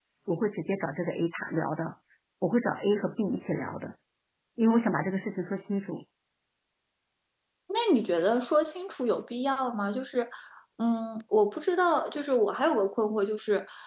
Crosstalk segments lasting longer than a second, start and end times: none

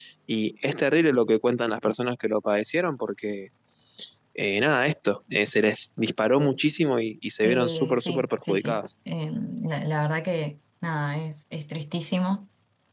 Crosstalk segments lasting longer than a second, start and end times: 7.4-8.8

